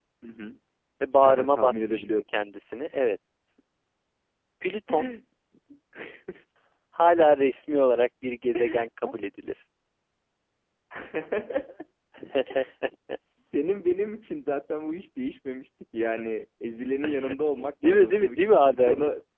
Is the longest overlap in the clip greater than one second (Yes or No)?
Yes